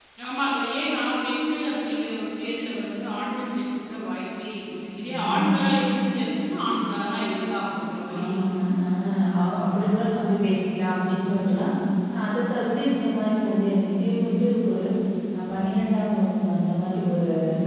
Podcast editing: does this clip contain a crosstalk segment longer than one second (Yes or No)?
No